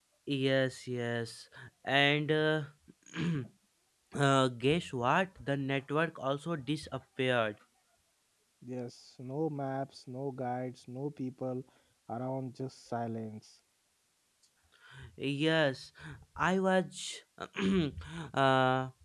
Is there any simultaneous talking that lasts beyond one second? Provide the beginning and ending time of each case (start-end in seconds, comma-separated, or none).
none